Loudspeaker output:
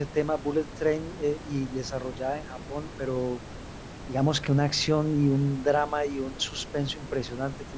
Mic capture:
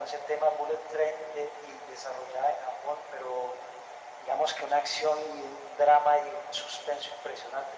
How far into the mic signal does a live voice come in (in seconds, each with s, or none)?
none